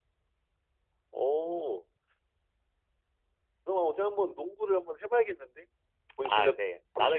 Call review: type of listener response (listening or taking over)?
taking over